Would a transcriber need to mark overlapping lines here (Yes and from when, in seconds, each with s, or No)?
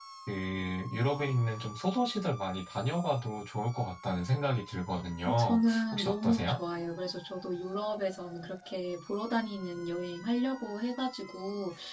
Yes, from 5.3 s